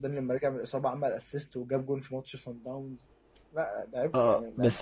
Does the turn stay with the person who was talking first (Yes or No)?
No